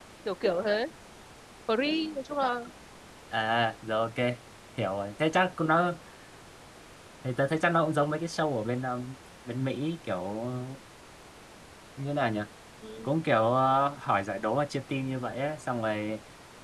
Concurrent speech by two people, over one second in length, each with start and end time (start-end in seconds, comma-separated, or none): none